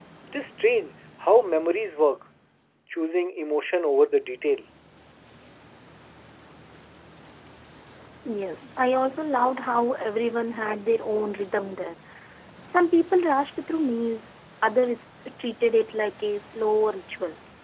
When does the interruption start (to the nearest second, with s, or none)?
none